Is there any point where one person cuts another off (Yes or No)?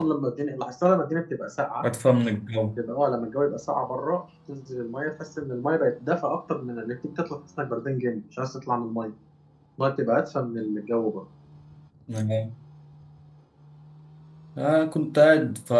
No